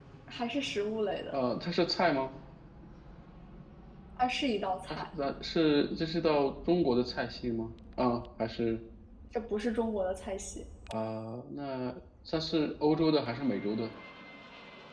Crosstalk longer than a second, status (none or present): none